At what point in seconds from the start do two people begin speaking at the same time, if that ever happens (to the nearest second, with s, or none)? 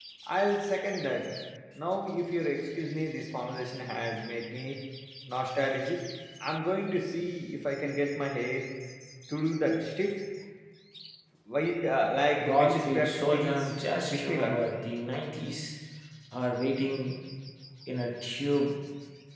12 s